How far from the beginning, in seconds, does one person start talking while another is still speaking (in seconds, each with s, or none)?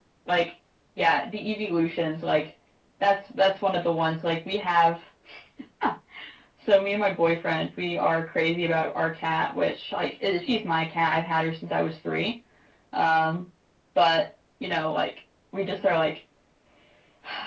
none